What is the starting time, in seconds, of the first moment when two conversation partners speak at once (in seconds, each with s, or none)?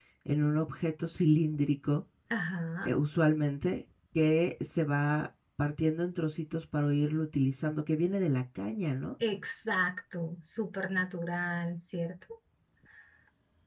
none